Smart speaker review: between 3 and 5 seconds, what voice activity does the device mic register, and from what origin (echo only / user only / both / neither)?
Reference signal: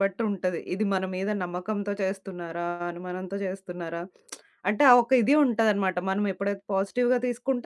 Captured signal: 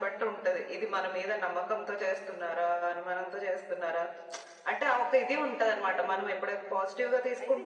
echo only